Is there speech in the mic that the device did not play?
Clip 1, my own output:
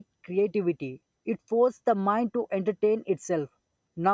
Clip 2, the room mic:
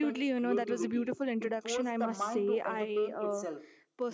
Yes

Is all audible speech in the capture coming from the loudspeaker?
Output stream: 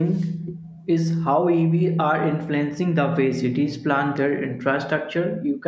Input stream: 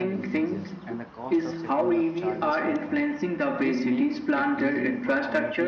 No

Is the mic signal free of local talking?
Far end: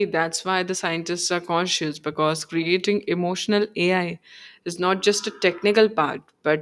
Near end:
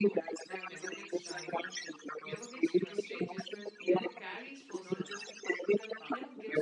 No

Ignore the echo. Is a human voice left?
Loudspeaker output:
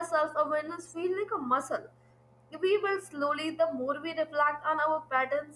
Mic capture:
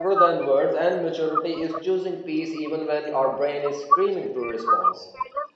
Yes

